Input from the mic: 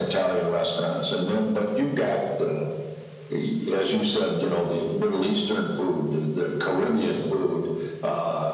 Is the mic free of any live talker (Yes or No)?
Yes